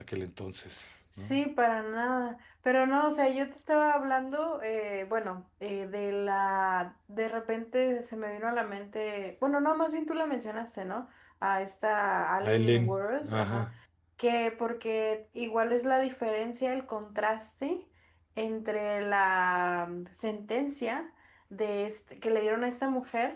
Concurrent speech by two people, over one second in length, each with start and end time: 12.4-13.7

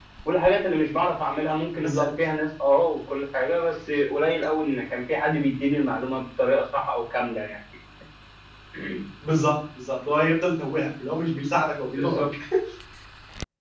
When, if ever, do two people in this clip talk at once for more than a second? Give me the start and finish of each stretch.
none

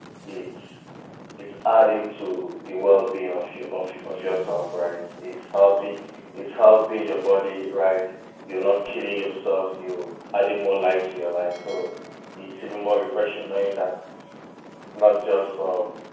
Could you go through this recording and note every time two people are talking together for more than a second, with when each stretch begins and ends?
none

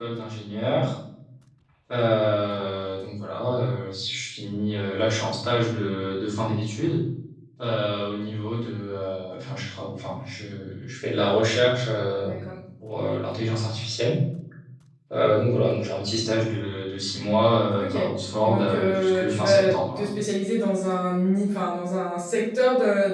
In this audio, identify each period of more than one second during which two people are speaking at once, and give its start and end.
18.4-20.1

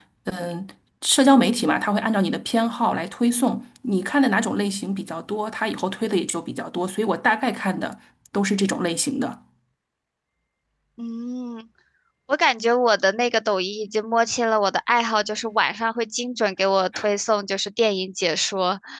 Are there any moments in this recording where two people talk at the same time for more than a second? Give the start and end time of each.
none

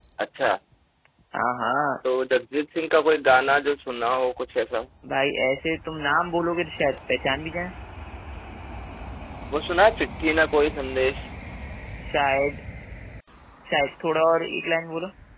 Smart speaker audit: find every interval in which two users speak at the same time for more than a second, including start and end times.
none

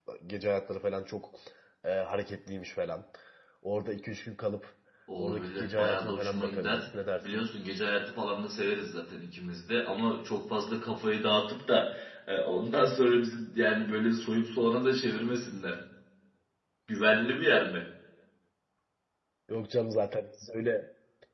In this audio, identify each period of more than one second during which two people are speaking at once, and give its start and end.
5.2-6.8

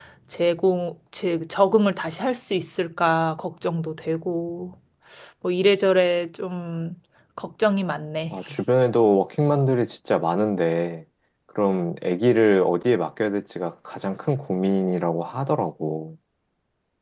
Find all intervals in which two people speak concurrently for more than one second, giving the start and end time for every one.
none

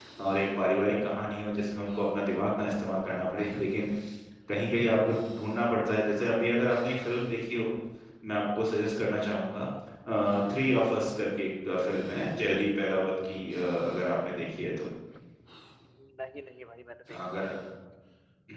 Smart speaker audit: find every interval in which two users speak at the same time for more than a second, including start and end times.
none

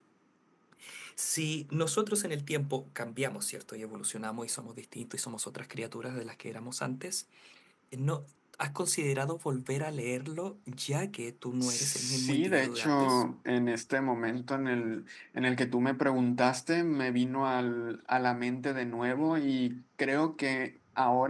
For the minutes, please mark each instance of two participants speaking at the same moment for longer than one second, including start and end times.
11.6-13.2

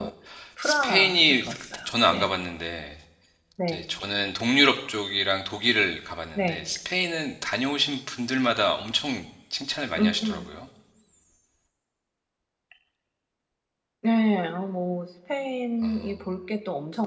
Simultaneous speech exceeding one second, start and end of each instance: 0.6-2.3

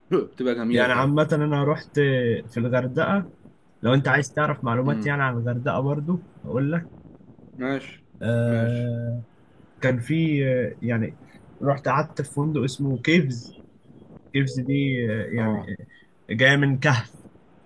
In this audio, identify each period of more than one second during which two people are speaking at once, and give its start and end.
none

